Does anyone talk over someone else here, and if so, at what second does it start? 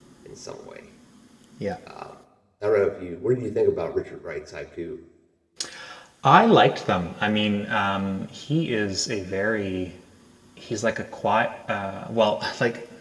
none

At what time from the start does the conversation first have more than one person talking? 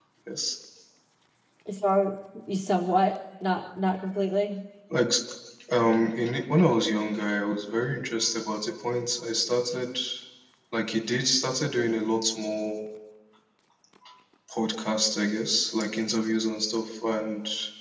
none

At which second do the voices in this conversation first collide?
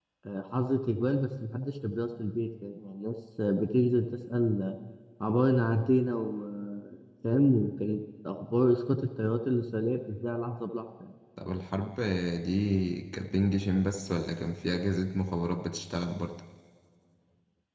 none

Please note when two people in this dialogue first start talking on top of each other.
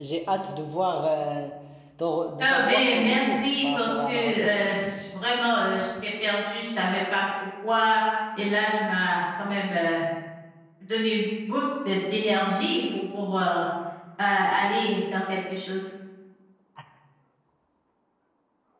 2 s

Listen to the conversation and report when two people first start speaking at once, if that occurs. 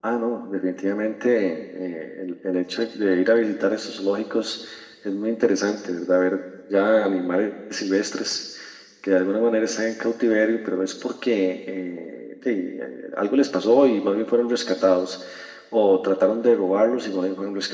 none

